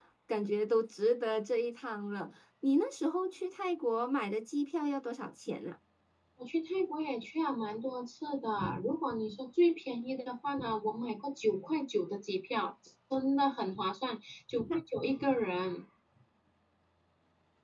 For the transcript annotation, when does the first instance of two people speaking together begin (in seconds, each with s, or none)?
none